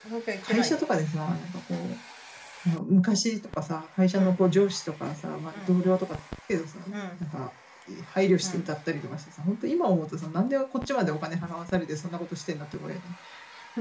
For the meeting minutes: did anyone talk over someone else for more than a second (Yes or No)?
No